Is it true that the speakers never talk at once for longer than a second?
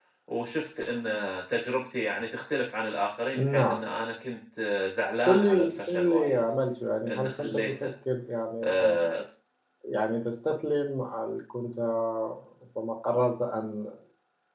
No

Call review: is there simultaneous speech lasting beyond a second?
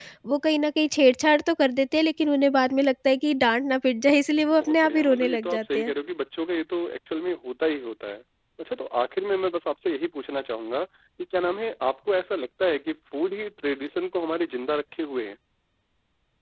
Yes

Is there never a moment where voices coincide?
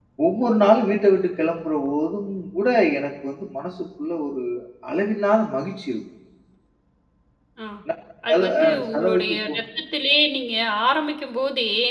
No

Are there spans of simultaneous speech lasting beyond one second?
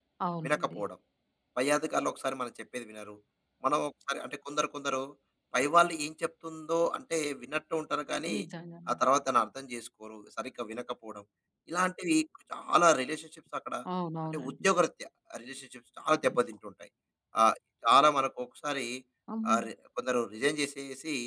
No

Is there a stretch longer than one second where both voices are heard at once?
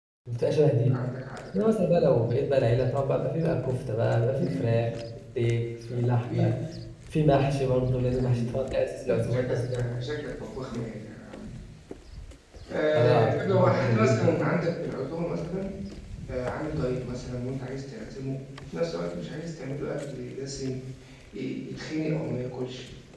Yes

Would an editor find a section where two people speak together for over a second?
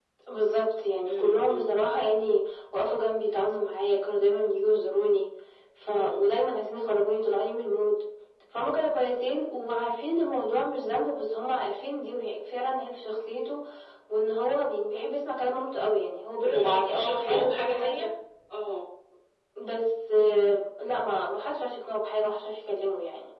Yes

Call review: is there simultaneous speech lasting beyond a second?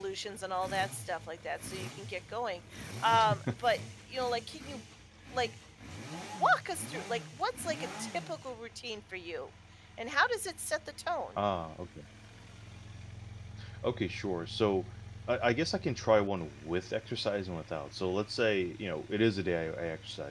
No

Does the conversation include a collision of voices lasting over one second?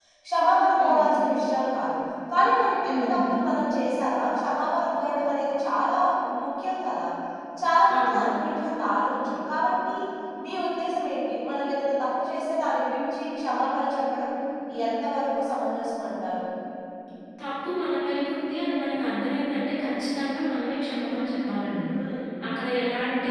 No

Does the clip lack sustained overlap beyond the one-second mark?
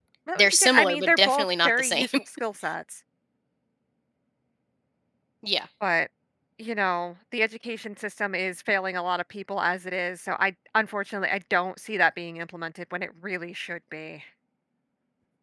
No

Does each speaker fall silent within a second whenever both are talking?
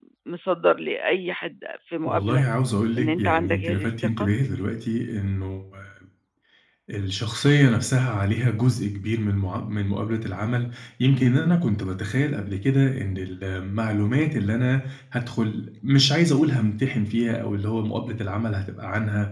No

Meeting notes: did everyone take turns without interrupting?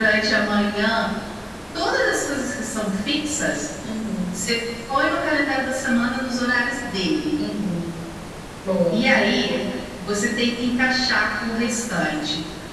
Yes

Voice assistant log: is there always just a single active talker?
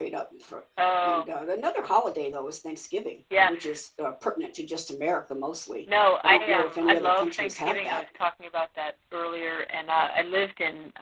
No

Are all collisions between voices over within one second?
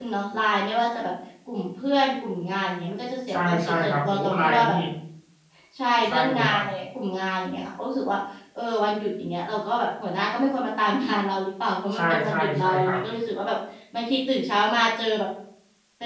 No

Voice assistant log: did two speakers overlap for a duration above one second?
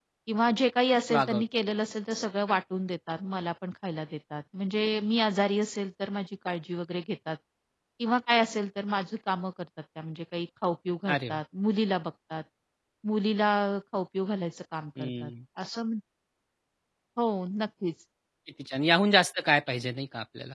No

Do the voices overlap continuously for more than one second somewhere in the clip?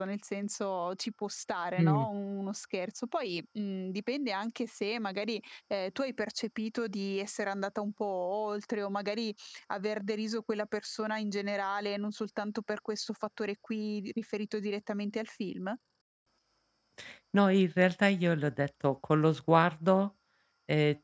No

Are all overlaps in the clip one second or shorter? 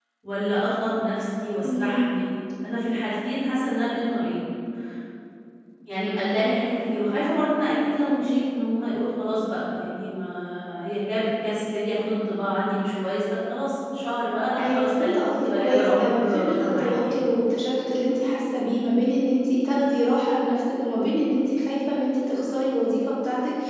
No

